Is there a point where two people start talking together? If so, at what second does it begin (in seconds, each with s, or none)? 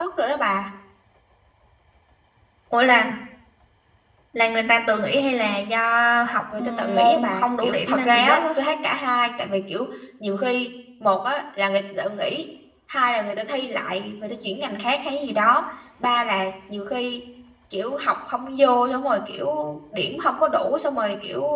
6.5 s